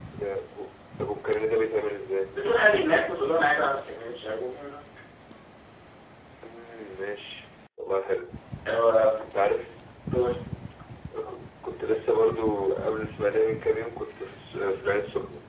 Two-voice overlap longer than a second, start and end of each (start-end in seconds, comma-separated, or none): none